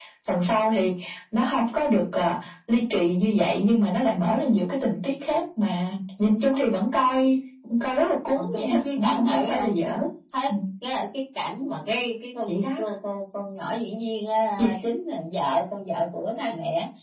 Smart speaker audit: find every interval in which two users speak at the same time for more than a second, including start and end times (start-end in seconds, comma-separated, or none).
8.3-9.7